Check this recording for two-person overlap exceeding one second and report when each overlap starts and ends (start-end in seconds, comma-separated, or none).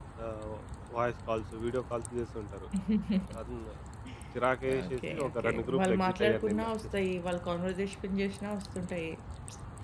4.9-6.7